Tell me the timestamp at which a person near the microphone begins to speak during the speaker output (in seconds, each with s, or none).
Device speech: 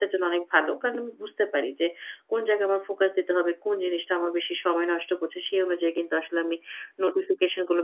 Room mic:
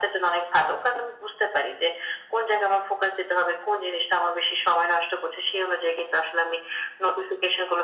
none